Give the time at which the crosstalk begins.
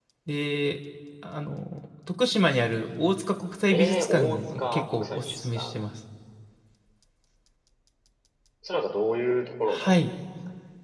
4 s

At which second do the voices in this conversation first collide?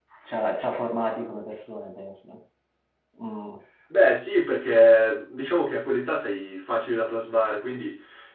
none

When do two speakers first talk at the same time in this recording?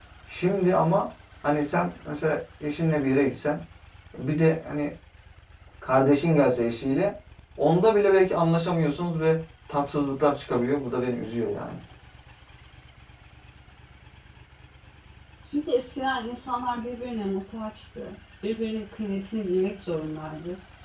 none

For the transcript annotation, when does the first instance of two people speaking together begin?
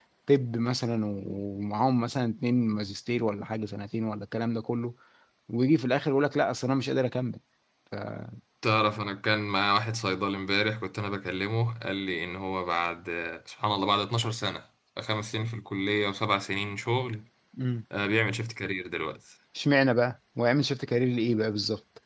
none

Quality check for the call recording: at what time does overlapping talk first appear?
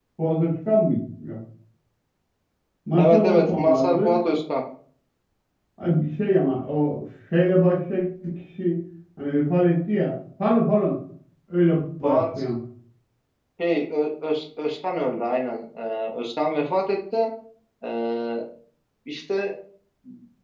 3 s

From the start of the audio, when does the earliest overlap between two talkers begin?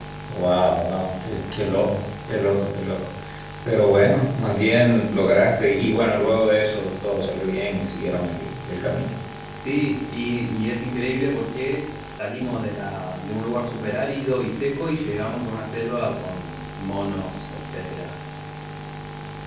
none

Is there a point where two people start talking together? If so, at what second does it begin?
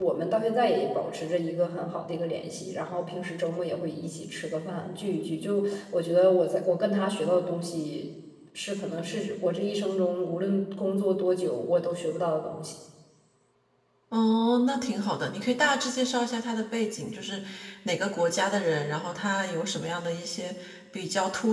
none

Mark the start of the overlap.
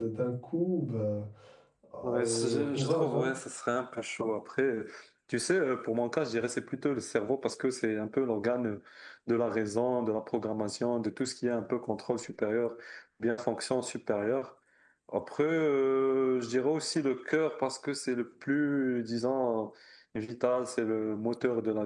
2 s

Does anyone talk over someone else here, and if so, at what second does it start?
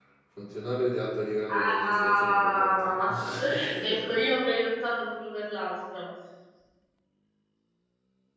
1 s

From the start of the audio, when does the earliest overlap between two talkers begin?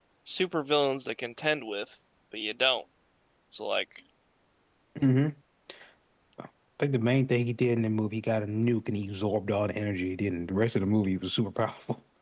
none

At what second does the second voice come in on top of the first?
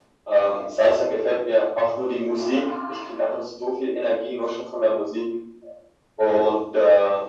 none

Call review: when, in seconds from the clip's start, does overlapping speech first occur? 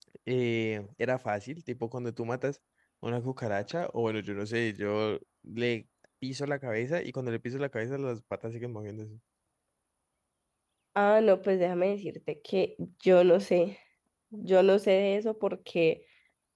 none

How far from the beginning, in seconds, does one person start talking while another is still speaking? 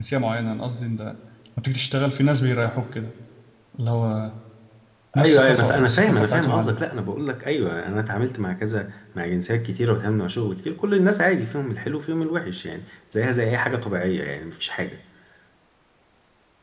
5 s

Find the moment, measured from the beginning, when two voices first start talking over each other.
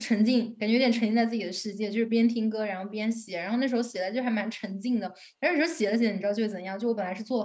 none

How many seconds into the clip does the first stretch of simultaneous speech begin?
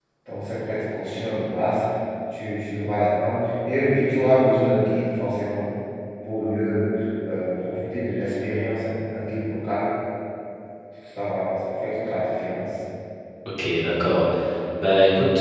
none

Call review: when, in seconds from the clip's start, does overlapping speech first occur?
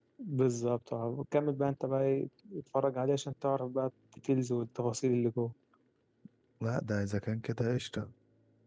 none

